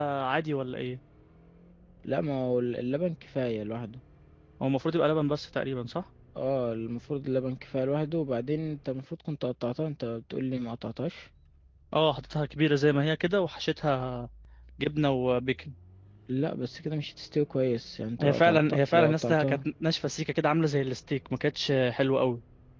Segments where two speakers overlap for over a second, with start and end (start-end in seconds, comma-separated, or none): 18.2-19.6